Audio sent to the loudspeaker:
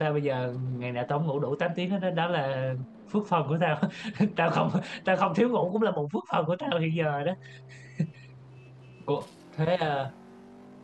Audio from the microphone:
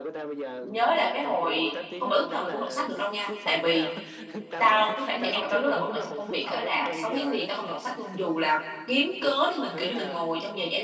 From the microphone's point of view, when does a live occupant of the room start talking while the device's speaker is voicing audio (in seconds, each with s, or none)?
0.6 s